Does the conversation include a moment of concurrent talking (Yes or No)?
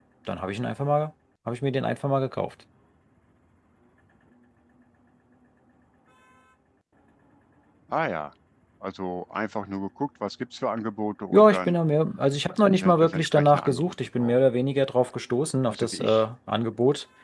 Yes